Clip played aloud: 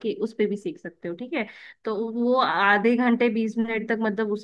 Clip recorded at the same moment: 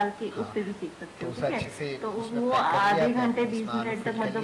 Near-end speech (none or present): present